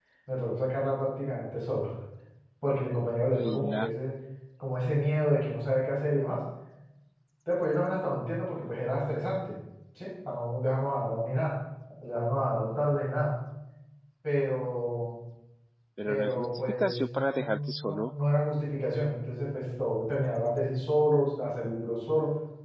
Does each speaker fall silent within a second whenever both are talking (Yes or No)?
No